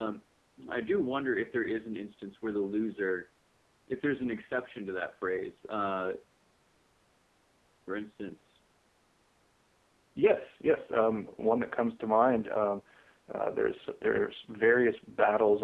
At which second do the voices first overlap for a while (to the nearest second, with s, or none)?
none